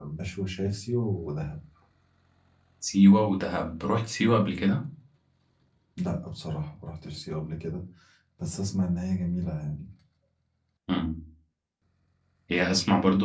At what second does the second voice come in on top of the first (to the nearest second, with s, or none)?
none